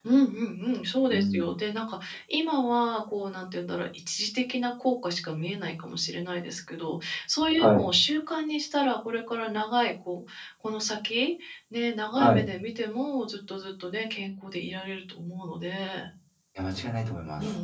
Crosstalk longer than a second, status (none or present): none